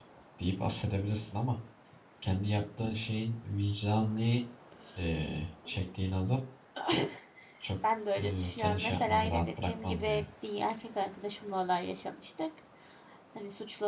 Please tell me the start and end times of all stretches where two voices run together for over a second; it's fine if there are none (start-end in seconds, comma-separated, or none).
8.2-10.2